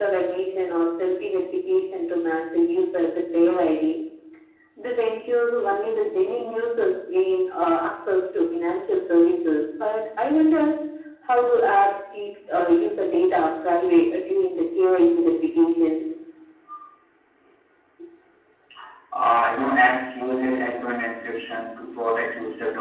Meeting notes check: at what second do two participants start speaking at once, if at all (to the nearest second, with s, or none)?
none